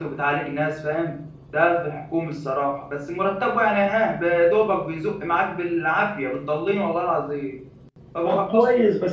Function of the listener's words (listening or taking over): taking over